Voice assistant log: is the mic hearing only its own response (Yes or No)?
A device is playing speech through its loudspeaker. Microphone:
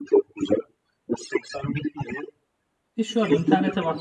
No